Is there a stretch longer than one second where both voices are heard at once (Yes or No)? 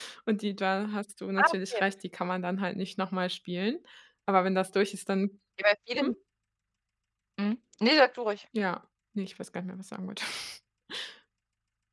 No